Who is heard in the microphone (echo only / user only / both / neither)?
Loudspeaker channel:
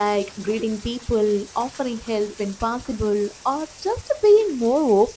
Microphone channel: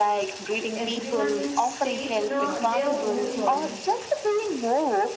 both